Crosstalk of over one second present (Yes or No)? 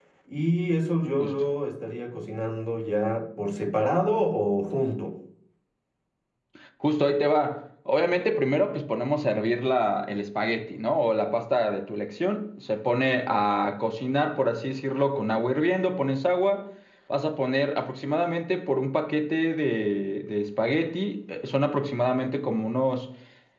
No